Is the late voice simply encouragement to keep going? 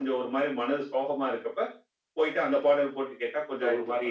No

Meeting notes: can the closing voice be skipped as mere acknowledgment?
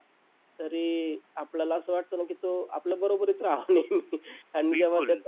Yes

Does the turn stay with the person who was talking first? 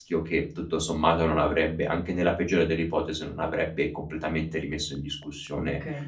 No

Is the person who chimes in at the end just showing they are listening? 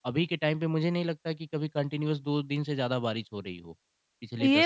No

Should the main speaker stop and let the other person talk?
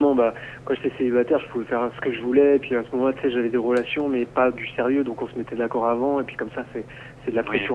No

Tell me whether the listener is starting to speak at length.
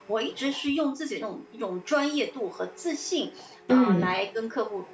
No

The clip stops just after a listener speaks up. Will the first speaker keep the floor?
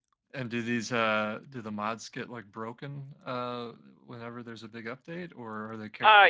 No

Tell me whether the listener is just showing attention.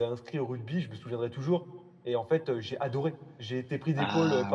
Yes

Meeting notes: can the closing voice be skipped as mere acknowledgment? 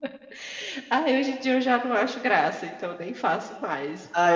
No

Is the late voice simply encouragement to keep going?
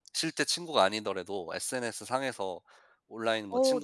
No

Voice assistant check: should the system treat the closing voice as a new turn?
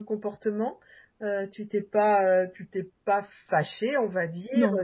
No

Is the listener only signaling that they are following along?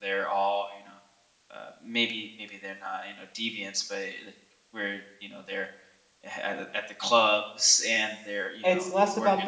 No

